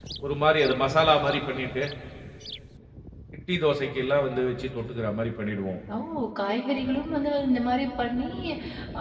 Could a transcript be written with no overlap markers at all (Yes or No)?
Yes